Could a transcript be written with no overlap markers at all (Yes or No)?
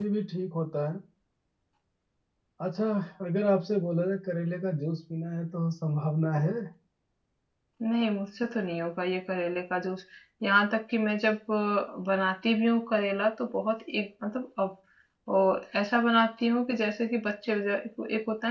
Yes